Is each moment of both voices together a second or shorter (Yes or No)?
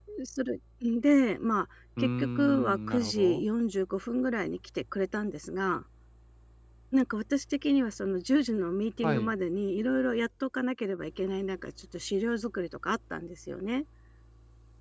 No